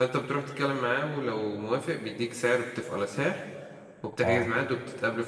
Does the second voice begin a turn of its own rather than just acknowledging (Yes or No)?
No